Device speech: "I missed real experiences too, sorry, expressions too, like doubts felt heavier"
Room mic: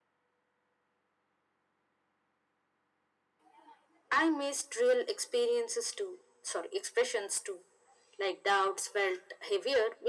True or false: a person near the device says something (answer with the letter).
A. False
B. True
A